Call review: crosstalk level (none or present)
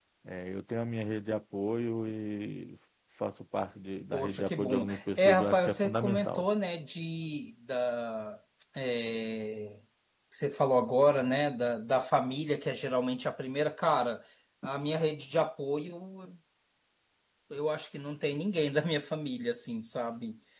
present